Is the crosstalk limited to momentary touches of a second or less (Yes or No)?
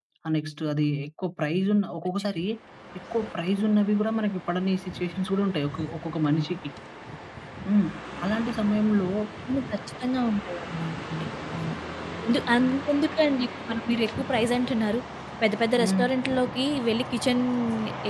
Yes